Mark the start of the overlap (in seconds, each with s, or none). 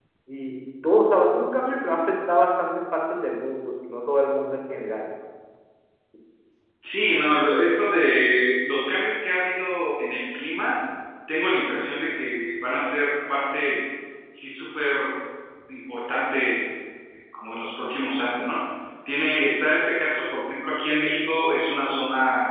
none